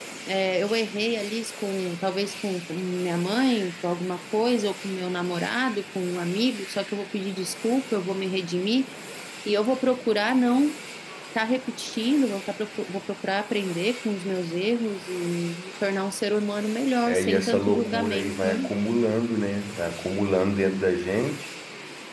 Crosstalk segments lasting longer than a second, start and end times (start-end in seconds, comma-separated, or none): 17.1-18.6